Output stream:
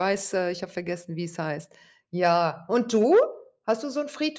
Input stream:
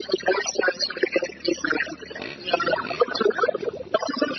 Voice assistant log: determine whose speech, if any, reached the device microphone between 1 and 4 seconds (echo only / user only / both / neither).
echo only